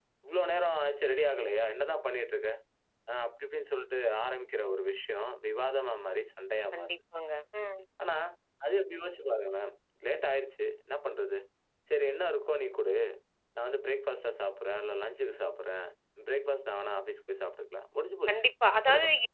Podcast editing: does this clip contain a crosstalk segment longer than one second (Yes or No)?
No